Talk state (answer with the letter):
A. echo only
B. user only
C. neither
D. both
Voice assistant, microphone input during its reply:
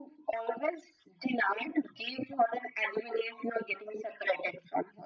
A